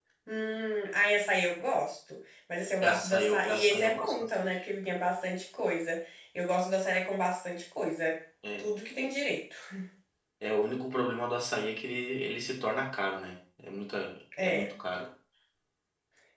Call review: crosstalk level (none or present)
present